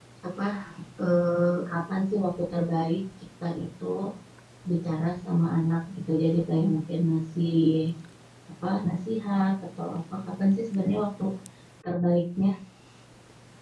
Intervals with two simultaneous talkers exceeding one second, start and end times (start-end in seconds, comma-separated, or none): none